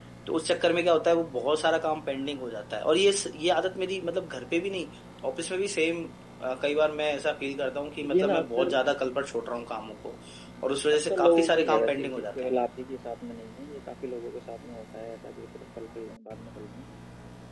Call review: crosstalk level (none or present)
present